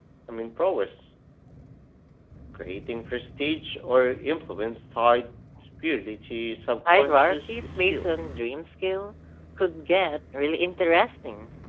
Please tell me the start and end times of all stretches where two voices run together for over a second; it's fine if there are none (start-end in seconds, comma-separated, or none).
6.9-8.1